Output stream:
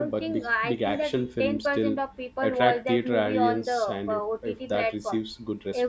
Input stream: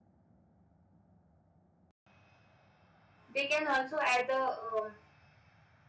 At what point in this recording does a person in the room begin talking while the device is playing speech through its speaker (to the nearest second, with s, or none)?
3 s